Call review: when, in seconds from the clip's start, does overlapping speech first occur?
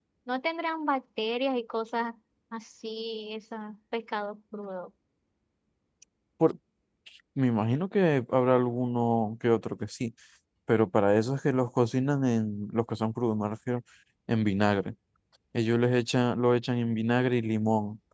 none

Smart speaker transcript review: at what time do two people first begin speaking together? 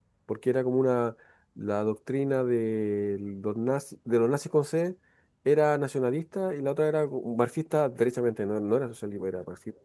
none

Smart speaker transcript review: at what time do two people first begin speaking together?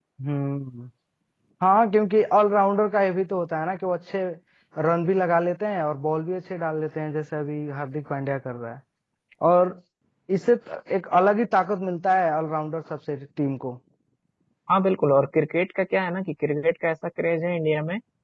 none

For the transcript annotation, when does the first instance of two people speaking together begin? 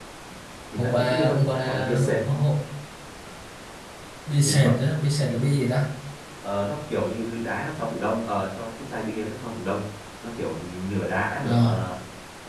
1 s

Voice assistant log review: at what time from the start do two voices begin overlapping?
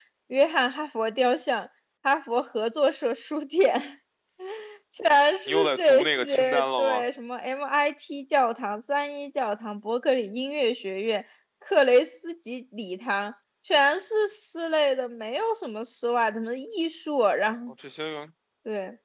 5 s

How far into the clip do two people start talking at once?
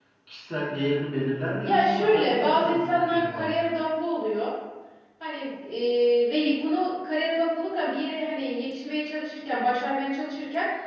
2 s

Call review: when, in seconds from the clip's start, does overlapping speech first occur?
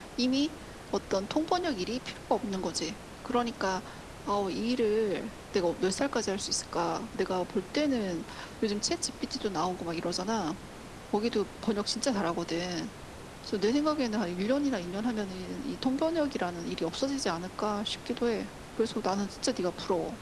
none

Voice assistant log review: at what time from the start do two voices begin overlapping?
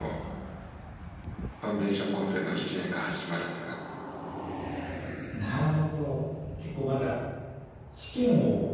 none

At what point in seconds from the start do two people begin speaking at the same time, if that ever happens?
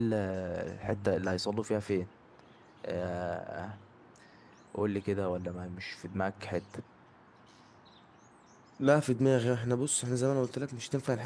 none

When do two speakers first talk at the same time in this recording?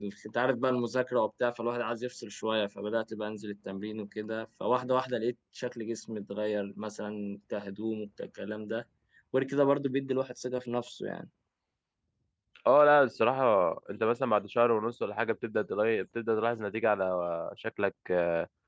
none

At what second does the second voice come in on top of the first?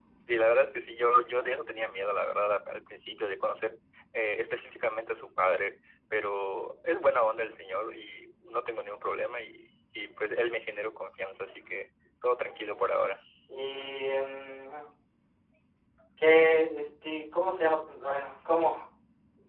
none

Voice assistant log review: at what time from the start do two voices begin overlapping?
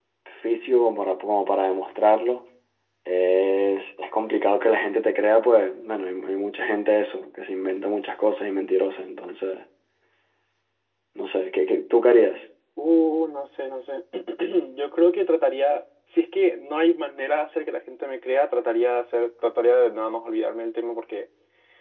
none

